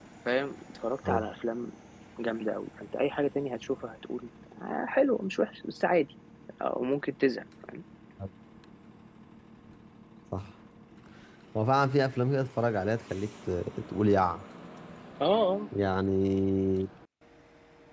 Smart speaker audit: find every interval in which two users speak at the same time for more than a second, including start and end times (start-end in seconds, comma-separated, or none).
none